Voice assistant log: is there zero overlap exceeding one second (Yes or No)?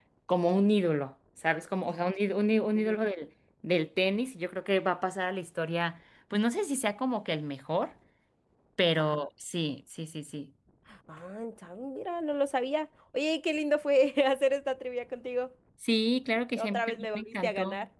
No